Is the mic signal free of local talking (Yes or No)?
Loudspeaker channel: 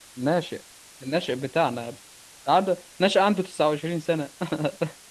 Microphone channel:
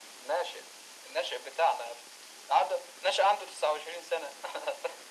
Yes